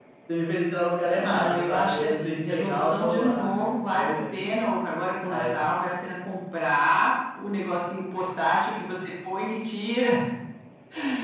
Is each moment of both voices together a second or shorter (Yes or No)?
No